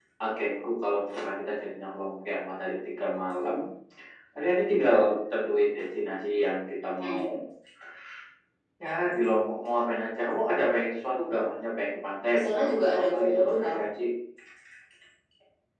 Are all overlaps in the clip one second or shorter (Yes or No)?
No